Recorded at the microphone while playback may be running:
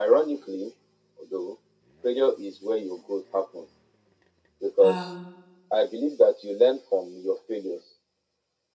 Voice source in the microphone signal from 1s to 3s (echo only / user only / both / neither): echo only